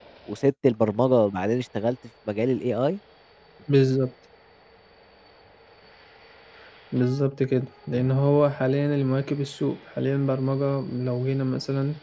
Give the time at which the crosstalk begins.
none

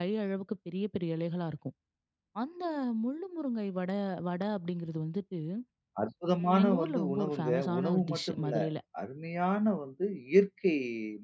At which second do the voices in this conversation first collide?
6.4 s

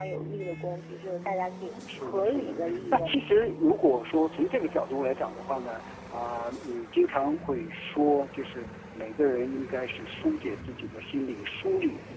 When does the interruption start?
1.9 s

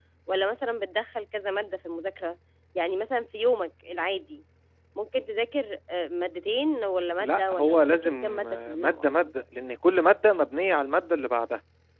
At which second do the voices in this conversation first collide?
7.2 s

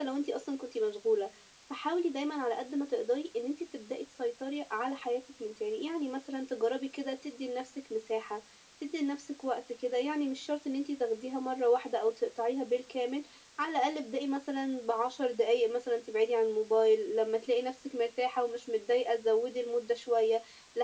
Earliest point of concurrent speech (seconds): none

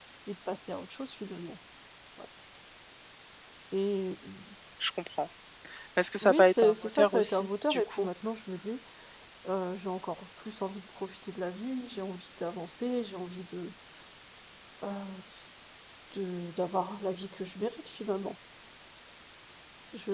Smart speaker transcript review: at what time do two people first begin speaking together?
6.2 s

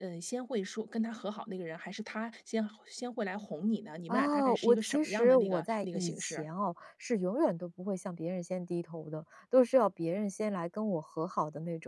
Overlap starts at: 4.1 s

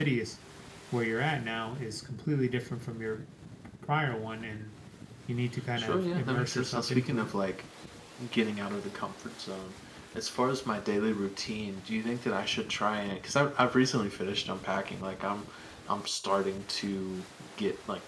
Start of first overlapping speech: 5.8 s

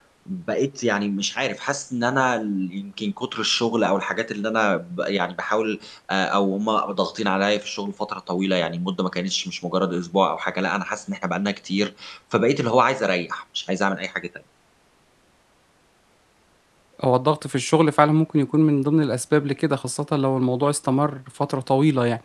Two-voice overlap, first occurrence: none

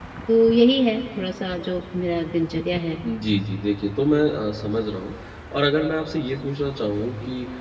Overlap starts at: none

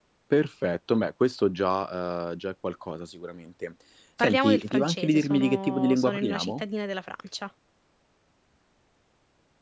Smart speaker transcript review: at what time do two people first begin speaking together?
4.2 s

